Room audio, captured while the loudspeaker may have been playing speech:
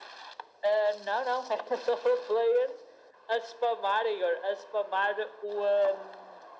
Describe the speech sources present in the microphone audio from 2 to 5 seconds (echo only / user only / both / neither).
echo only